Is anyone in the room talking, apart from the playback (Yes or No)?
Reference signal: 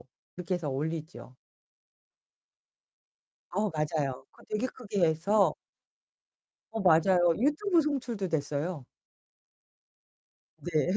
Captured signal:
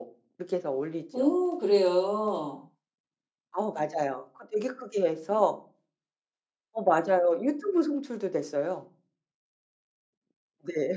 Yes